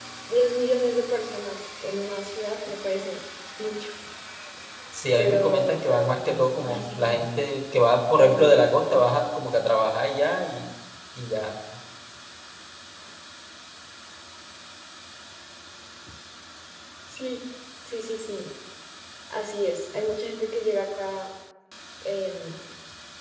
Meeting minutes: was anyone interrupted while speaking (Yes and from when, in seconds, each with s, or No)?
Yes, from 5.2 s